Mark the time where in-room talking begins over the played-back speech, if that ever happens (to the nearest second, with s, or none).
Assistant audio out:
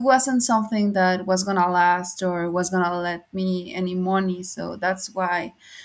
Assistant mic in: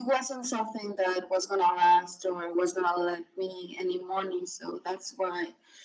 none